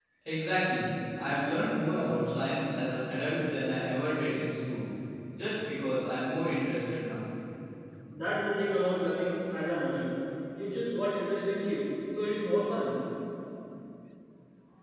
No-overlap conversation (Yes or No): Yes